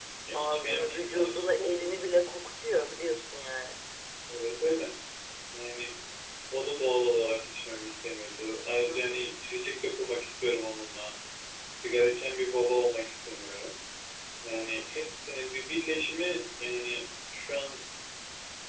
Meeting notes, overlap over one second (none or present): present